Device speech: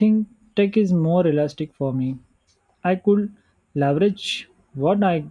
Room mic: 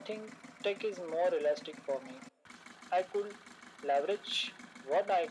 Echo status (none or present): present